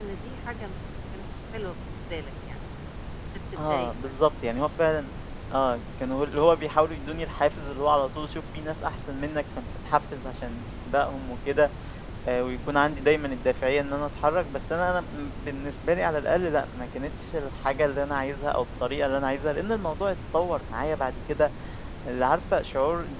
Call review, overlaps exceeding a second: none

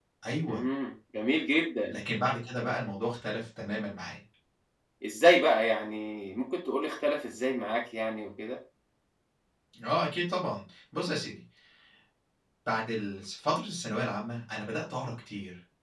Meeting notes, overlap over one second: none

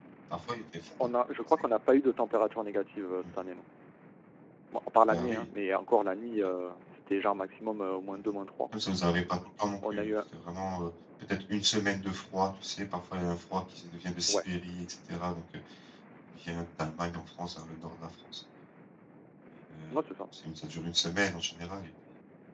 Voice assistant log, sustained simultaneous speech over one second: none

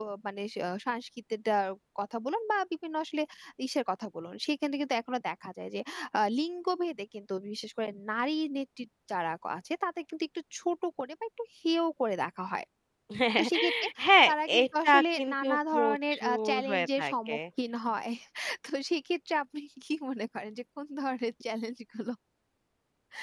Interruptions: present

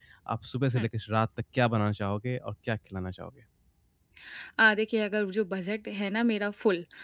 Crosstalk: none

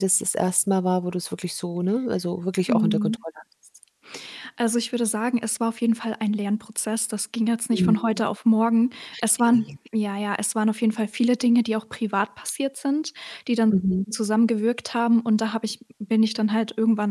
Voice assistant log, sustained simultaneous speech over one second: none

